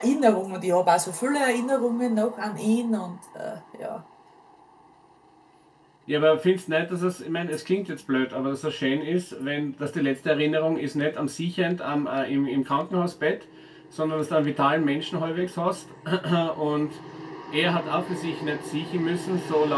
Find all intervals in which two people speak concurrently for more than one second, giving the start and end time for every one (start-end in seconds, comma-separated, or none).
none